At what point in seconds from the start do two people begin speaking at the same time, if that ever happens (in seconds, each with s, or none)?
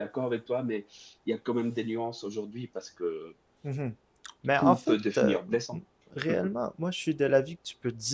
4.6 s